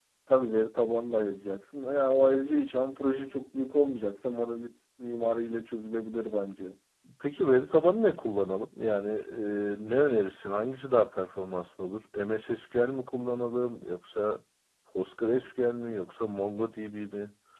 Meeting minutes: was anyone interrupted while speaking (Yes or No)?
No